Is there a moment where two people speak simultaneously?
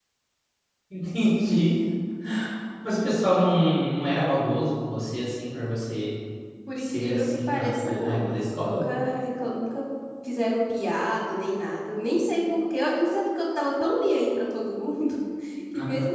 Yes, from 6.8 s

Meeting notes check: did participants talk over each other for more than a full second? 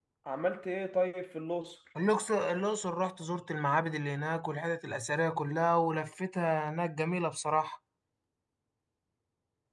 No

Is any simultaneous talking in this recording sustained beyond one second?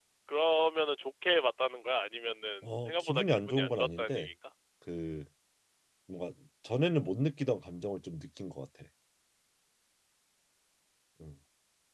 Yes, from 2.9 s

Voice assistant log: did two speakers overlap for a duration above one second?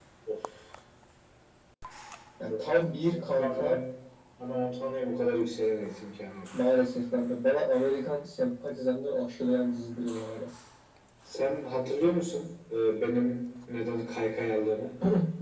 Yes, from 2.5 s

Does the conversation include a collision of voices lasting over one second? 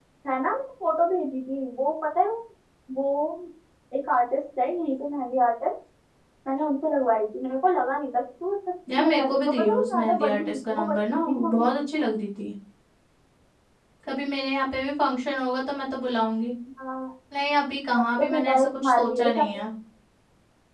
Yes, from 9.0 s

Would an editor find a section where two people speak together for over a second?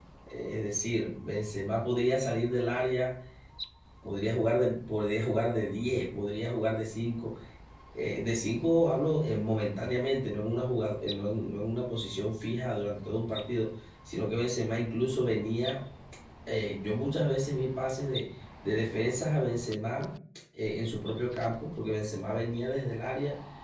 No

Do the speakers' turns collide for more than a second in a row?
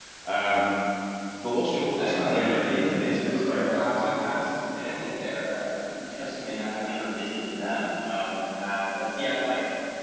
Yes, from 2.0 s

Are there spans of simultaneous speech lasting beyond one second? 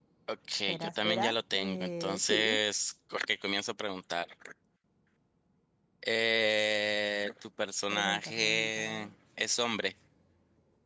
Yes, from 0.7 s

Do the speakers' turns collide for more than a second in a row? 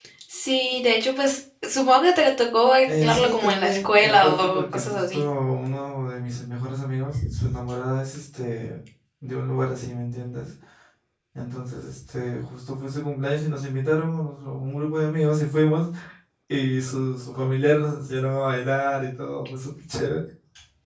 Yes, from 2.9 s

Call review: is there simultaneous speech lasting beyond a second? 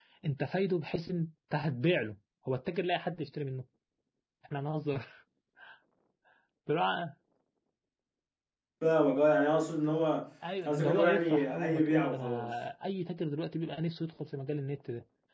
Yes, from 10.7 s

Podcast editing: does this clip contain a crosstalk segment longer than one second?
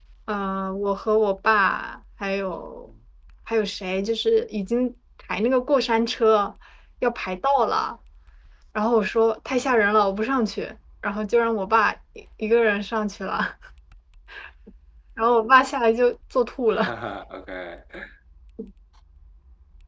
No

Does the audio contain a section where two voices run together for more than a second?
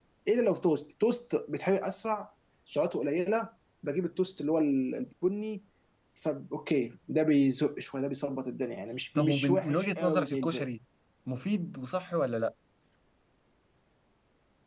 Yes, from 9.2 s

